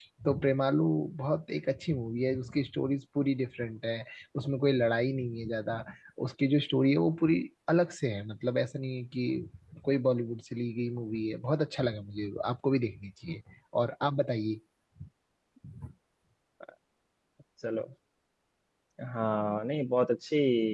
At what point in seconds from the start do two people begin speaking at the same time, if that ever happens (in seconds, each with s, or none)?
none